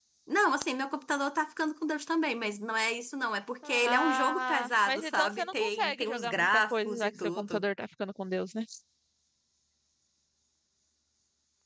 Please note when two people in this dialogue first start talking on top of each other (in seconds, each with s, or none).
3.6 s